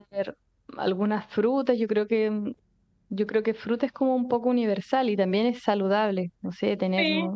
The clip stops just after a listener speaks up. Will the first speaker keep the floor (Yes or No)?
Yes